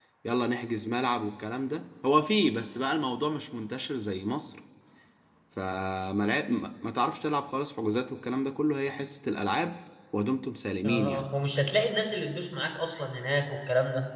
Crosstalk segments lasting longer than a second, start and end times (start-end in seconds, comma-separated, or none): none